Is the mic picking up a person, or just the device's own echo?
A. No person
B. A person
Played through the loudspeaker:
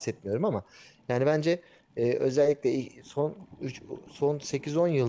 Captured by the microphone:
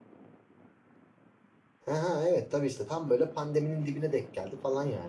B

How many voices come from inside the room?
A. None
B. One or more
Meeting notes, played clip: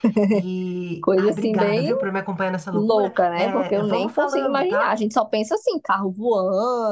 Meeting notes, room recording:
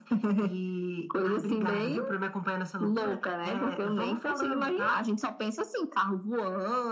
A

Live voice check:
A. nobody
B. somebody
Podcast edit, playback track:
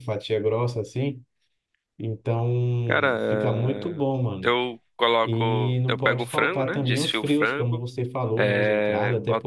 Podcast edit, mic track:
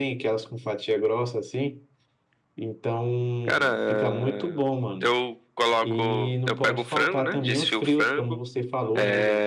A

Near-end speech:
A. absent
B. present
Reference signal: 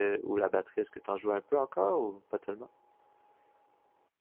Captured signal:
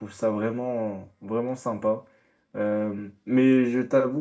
B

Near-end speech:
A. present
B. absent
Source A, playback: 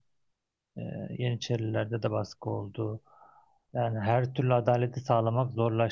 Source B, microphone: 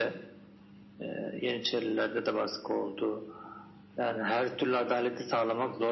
B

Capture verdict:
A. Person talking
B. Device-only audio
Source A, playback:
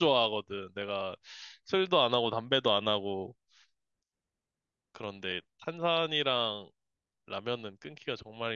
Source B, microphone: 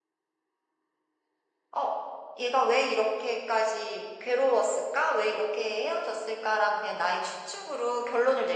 A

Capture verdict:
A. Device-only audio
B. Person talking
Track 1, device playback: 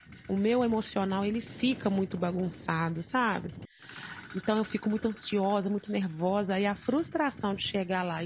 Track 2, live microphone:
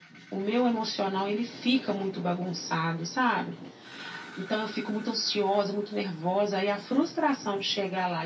A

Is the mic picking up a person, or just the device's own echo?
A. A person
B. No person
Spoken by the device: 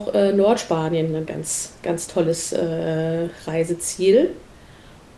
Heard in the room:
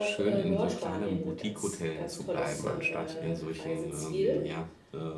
A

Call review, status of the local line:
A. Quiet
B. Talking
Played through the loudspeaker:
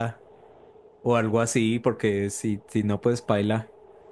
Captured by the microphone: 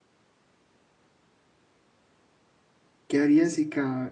B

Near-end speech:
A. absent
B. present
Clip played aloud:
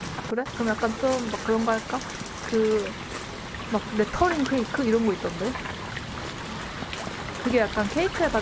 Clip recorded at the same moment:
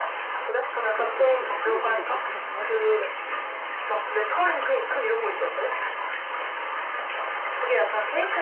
B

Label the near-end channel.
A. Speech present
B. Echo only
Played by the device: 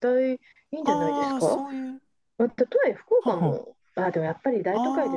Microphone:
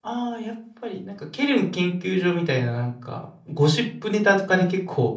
A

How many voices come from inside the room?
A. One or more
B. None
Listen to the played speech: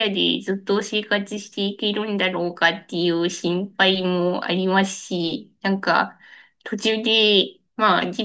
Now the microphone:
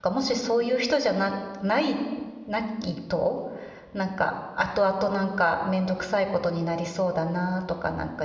A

